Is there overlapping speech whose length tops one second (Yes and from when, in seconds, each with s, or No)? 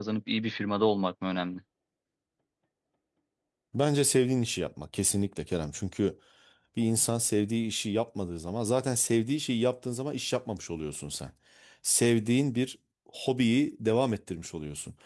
No